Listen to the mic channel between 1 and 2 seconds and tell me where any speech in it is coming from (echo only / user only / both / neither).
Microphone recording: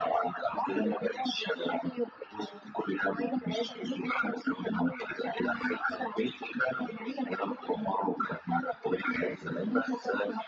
echo only